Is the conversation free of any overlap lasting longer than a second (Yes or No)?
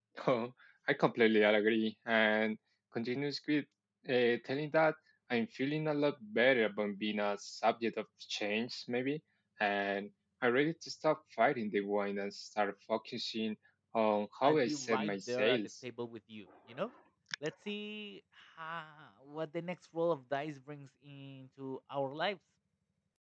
No